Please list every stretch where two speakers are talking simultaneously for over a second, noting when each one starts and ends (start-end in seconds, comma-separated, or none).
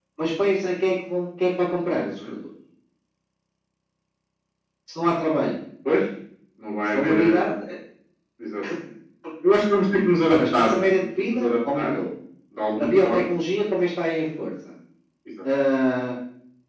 10.3-11.9